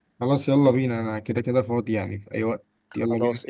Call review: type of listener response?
taking over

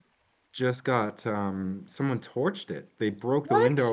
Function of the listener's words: listening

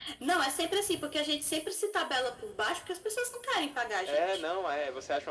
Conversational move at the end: taking over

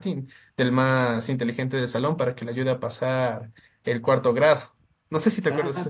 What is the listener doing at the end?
taking over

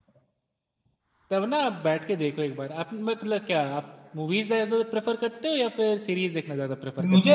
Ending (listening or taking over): taking over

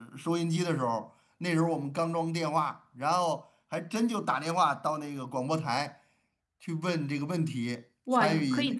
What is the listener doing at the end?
taking over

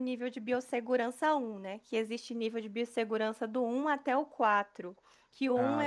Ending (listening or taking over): listening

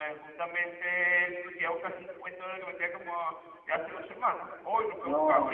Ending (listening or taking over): taking over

